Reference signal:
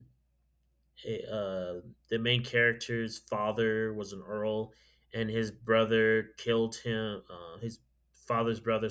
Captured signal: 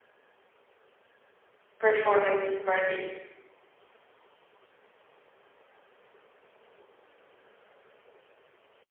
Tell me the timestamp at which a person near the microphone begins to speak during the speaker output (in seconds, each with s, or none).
1.8 s